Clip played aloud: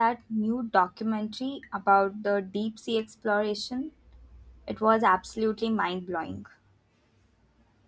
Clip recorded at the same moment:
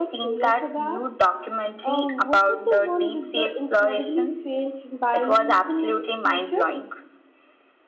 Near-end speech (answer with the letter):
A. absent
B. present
B